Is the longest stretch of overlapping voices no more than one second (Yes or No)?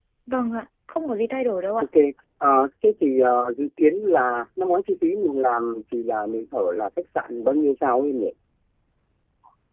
Yes